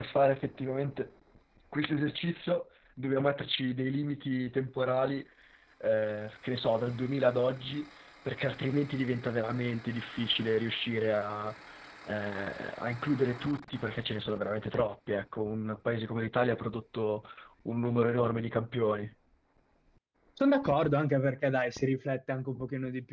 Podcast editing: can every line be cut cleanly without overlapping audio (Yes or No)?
Yes